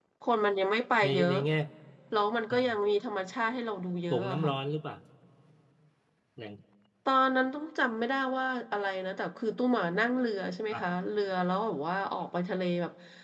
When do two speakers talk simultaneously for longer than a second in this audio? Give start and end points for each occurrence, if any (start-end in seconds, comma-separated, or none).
none